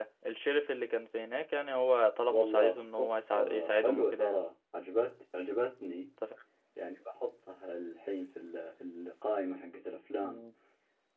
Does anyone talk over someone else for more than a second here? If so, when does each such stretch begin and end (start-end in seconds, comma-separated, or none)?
2.3-4.4